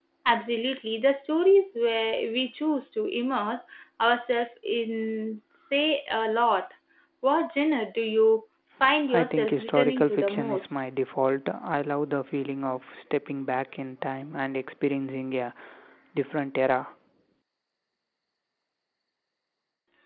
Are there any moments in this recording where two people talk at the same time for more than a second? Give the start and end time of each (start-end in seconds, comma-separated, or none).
9.1-10.7